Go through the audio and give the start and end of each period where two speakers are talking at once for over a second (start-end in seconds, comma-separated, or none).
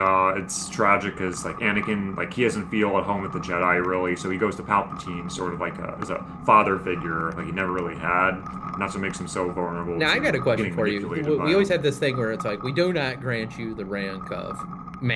10.0-11.8